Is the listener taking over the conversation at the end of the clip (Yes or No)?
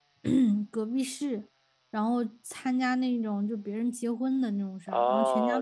Yes